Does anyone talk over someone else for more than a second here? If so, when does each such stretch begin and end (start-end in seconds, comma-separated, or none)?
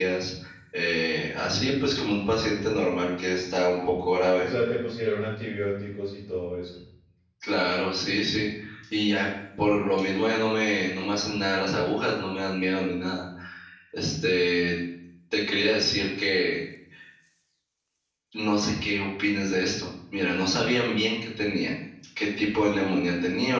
none